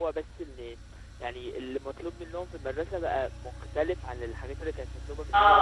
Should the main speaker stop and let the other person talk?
Yes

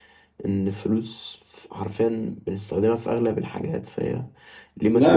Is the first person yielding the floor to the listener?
Yes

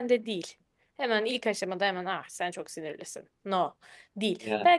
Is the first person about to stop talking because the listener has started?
No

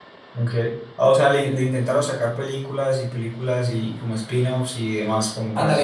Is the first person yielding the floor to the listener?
Yes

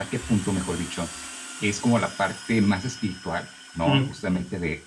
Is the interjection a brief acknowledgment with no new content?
Yes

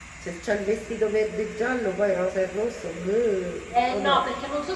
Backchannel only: No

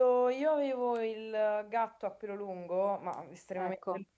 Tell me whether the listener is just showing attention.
Yes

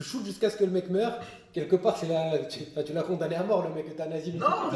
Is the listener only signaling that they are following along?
No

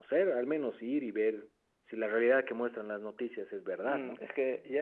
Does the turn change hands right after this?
Yes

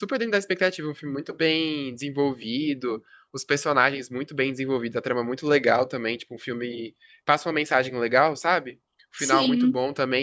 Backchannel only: Yes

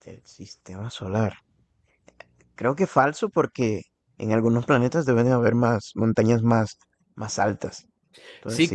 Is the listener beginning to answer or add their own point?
Yes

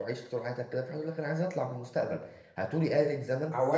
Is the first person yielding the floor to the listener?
Yes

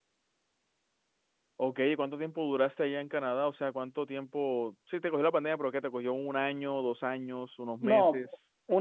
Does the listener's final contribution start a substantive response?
Yes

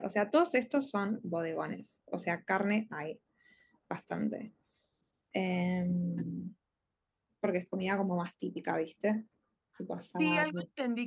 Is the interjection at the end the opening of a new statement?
Yes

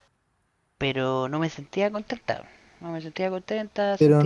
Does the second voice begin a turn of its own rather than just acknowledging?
Yes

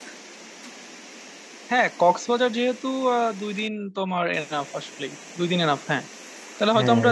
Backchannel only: Yes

